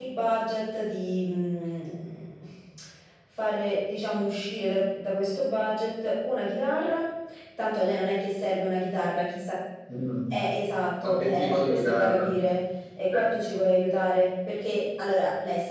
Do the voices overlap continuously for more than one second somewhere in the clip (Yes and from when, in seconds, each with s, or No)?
Yes, from 11.0 s